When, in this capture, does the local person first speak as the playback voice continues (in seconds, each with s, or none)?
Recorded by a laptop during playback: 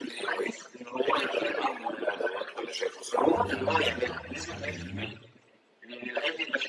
3.2 s